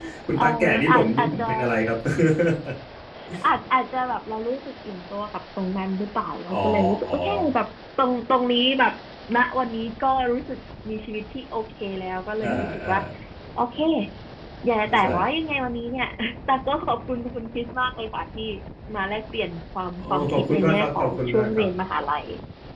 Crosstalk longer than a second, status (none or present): present